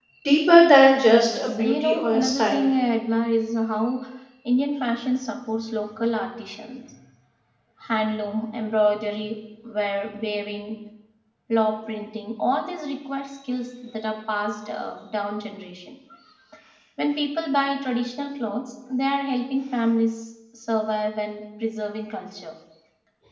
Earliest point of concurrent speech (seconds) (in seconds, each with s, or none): 1.1 s